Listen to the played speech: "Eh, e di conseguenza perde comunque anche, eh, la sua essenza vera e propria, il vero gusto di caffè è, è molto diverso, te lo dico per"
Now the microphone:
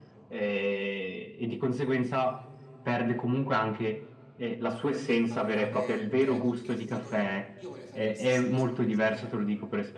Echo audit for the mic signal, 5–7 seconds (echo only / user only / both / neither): both